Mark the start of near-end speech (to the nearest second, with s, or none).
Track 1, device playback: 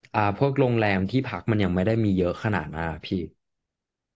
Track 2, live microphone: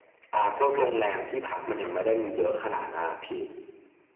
none